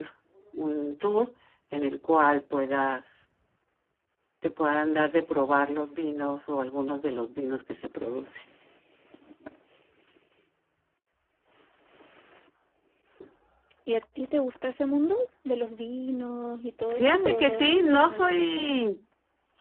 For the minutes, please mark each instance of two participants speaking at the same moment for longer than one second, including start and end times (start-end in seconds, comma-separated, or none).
16.9-18.7